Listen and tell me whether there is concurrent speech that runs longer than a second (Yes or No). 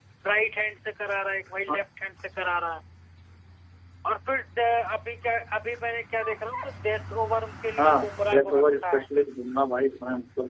Yes